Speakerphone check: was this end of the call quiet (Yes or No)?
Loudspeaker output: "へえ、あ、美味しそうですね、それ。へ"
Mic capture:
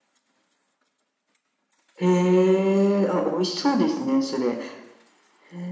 Yes